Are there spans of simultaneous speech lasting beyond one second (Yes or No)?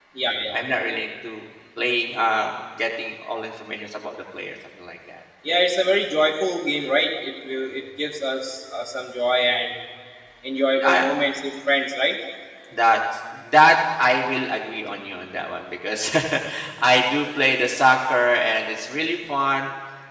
No